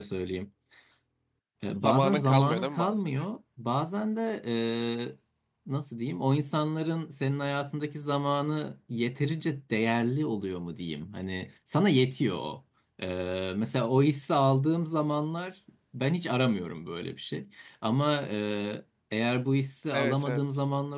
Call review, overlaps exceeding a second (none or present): present